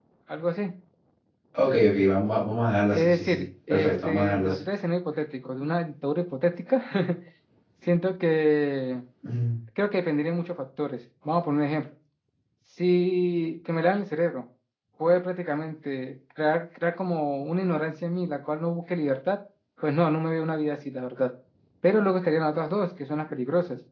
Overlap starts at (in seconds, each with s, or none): 2.9 s